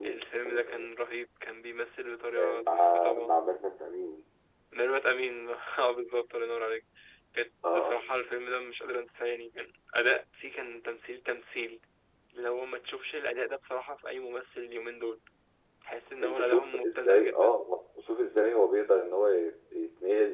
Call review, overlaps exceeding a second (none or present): present